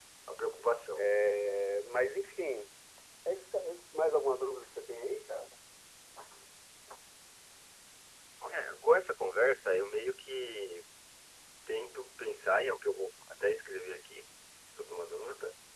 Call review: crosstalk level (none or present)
none